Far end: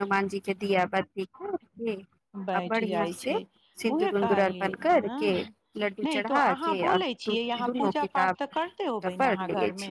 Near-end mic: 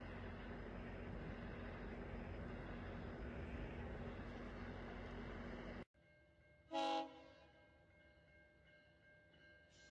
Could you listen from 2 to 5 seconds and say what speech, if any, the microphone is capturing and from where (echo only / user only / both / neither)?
neither